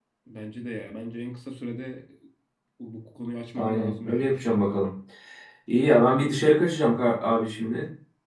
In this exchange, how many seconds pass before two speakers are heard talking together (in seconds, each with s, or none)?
3.6 s